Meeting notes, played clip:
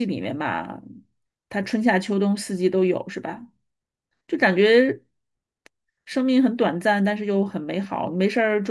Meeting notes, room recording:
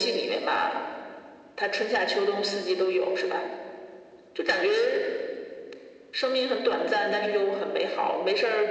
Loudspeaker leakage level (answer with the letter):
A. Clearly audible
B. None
A